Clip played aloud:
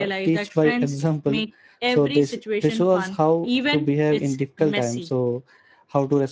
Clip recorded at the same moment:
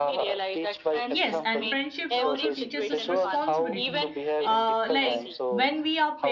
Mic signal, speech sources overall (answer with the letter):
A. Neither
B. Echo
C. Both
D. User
C